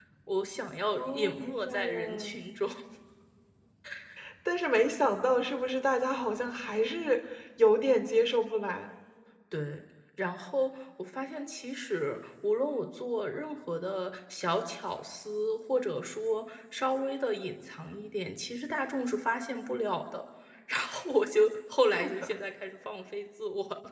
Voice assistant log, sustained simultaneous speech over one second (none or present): present